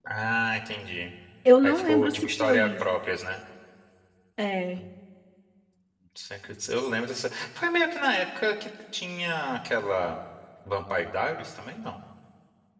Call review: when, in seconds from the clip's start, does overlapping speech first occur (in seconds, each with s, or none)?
1.6 s